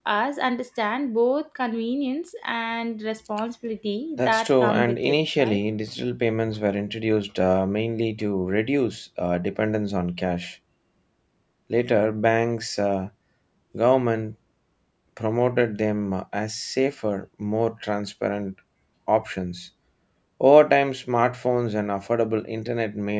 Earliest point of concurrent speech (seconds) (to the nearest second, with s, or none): 4 s